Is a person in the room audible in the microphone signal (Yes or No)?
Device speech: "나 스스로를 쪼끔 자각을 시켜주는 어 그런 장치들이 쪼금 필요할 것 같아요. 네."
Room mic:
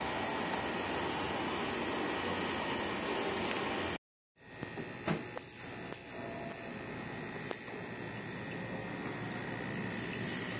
No